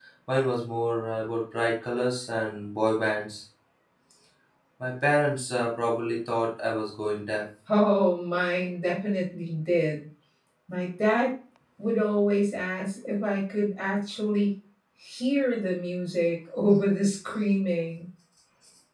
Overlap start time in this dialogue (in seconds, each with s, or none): none